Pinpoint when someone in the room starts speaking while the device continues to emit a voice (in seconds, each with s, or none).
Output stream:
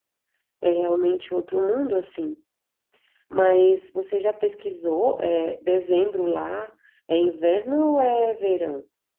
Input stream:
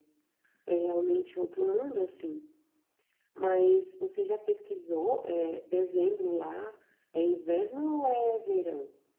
none